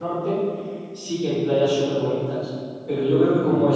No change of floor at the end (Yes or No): Yes